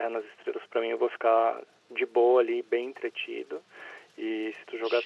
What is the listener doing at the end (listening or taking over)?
listening